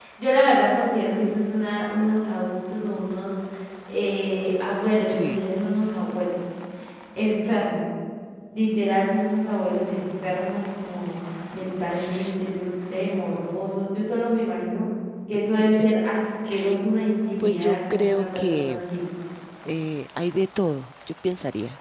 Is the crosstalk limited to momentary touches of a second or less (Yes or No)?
No